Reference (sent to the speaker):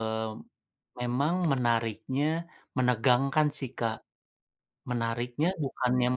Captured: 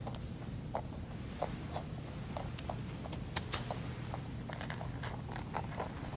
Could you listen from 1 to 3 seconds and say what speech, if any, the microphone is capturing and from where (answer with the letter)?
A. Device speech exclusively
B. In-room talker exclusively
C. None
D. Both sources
C